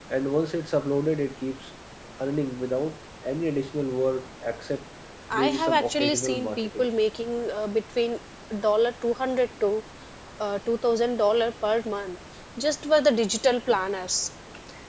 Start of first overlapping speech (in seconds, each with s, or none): 5.3 s